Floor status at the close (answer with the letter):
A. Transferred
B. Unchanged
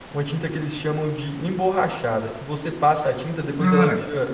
B